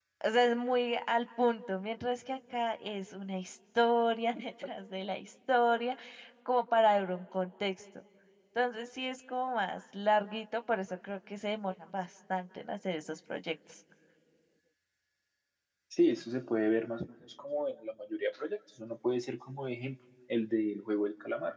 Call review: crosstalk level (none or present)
none